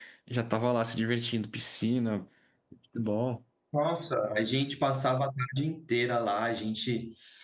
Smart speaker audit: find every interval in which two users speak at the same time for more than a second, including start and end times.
none

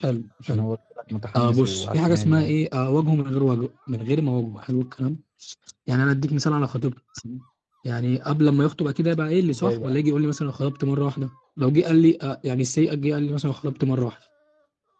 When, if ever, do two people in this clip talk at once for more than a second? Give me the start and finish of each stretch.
1.4-2.6

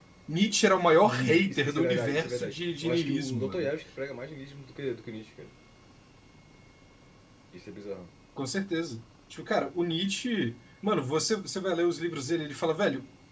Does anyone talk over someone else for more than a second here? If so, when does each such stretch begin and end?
0.9-3.7

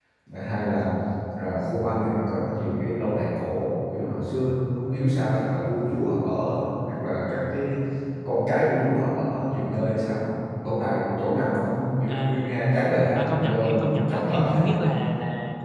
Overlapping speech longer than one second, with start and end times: 13.1-14.4

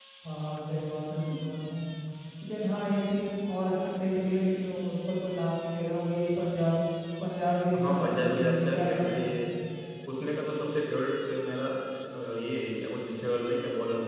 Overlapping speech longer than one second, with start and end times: 7.9-9.3

